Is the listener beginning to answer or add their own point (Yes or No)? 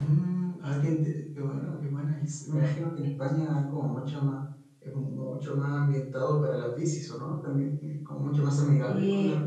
No